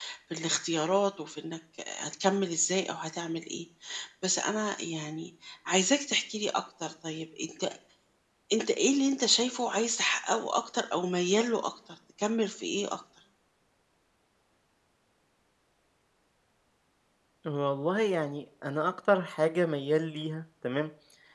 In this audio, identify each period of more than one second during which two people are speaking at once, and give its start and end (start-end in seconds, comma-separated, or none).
none